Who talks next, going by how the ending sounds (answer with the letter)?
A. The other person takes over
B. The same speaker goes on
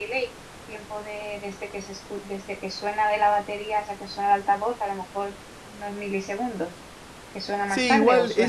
A